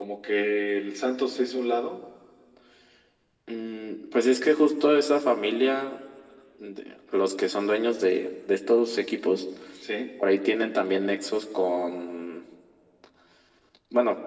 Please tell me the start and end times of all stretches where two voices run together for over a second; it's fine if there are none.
none

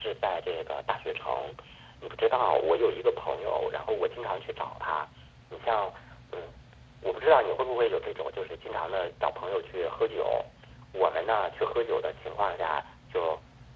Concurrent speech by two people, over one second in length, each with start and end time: none

